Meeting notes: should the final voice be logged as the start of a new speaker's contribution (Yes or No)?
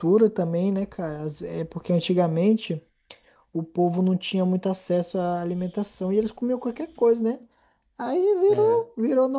No